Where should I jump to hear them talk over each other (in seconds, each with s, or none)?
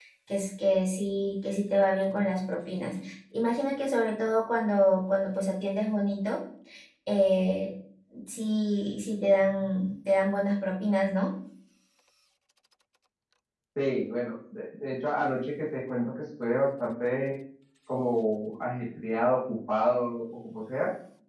none